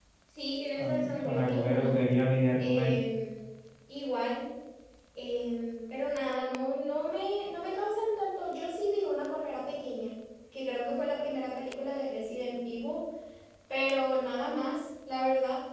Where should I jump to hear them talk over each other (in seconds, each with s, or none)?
0.8 s